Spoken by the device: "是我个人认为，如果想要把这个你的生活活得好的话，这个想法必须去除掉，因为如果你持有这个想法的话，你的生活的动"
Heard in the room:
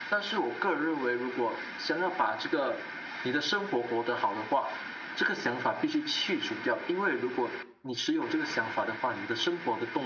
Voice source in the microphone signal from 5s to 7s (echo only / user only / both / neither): echo only